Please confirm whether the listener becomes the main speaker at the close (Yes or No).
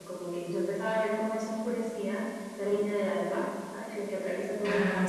No